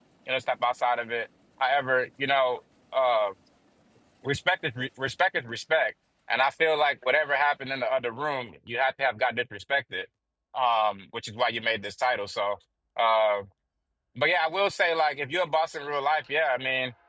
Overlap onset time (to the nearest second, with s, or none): none